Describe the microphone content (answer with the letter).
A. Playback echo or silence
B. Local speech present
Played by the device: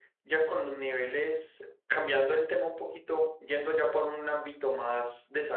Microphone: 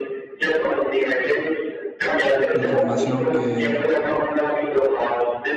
B